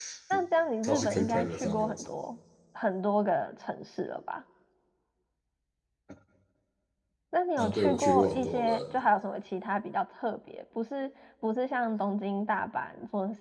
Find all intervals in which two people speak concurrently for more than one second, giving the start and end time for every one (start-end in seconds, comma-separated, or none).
0.8-2.1, 7.6-8.9